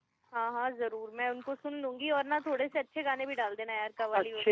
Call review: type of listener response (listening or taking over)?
taking over